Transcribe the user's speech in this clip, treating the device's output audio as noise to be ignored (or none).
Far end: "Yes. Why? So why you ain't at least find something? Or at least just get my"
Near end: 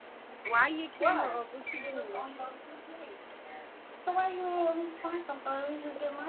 why your camera off? What you doing?